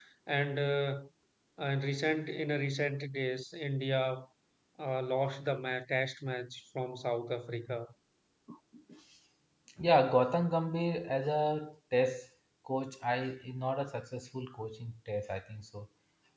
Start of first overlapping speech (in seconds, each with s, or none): none